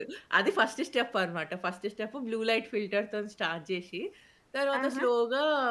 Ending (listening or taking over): listening